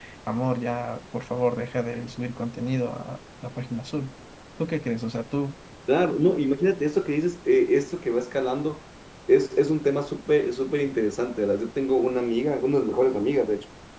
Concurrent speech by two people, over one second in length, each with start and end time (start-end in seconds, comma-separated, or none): none